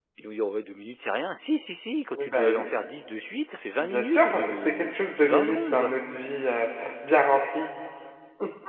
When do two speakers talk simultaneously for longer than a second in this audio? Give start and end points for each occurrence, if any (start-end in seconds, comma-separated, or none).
3.8-5.9